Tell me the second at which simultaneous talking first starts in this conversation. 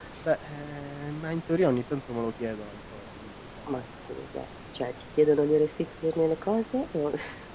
none

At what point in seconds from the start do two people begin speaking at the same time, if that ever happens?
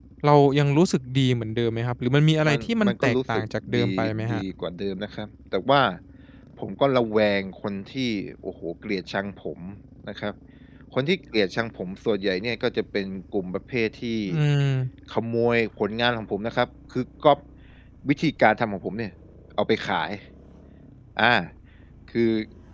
2 s

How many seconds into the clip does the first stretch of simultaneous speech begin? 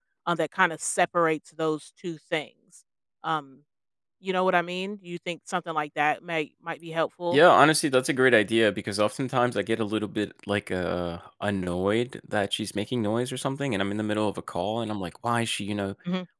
none

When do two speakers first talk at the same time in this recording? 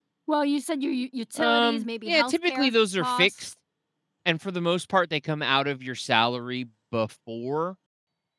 1 s

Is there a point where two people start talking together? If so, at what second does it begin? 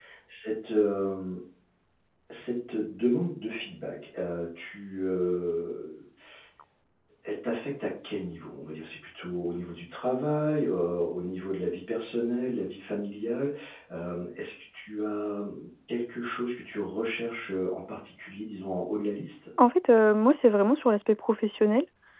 none

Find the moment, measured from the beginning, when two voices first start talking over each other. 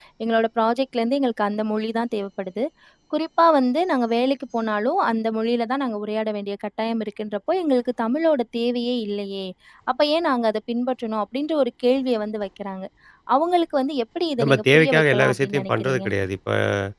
14 s

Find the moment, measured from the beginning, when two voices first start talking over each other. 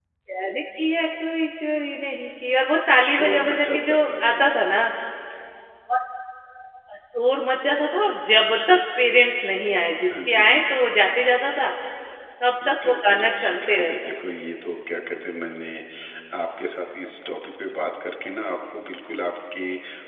3 s

